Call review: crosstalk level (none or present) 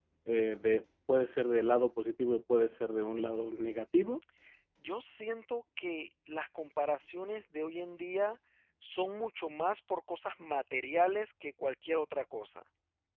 none